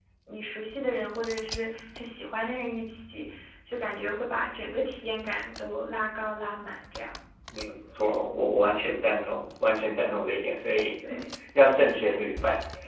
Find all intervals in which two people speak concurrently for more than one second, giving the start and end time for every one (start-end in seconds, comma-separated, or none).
none